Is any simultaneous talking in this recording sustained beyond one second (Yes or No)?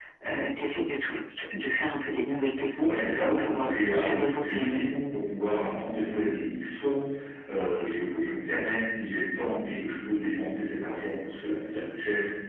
Yes